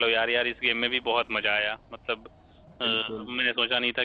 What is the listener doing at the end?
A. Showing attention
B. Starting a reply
A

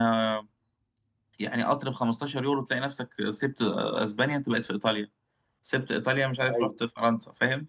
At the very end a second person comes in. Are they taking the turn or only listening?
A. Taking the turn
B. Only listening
B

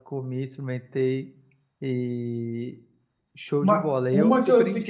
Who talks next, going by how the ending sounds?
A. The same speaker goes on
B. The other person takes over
B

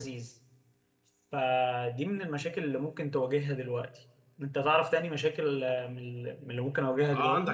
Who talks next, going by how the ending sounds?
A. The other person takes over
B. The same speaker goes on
A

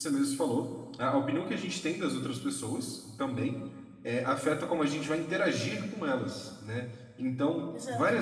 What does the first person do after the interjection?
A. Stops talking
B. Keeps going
B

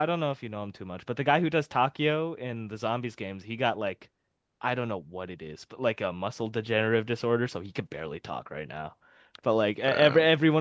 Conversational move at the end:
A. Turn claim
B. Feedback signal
B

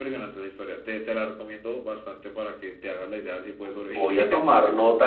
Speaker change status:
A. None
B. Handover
B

